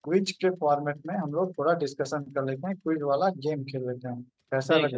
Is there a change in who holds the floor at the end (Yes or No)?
Yes